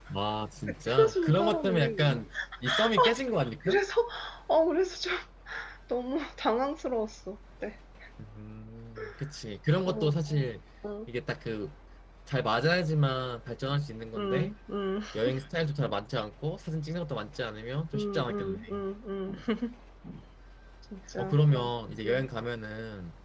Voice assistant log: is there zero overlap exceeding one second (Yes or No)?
No